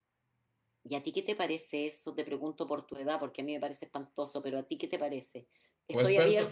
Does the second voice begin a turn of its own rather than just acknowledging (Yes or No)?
No